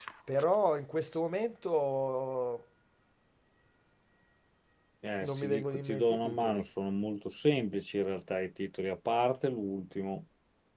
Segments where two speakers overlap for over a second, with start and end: 5.2-6.6

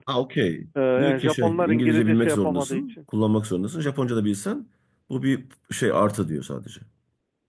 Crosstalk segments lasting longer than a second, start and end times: 1.0-2.9

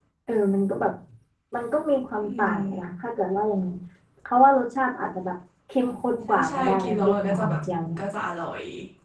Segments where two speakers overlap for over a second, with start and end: 6.3-7.6

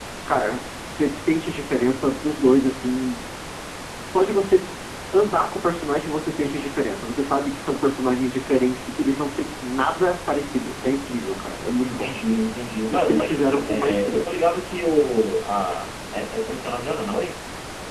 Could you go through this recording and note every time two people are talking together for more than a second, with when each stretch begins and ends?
12.9-14.2

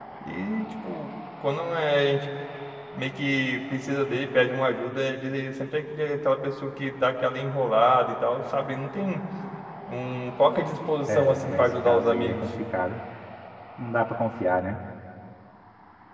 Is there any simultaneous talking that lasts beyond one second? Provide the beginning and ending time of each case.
11.1-12.4

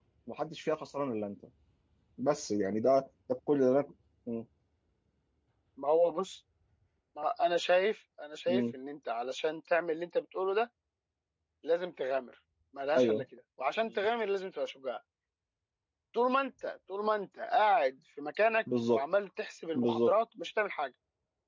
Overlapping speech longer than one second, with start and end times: none

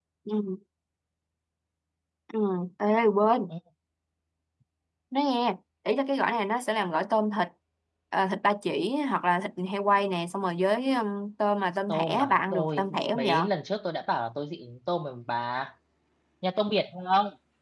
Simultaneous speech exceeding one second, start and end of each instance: 11.9-13.5

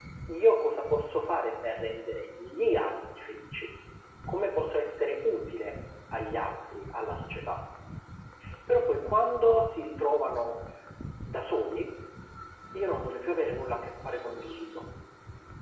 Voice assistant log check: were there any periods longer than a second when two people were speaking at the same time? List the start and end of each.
none

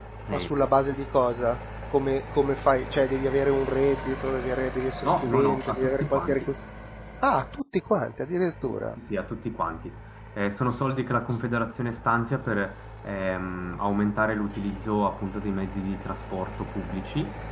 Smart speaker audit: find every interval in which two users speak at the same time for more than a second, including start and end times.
5.0-6.5

